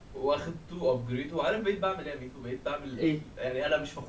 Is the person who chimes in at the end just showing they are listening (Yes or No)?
Yes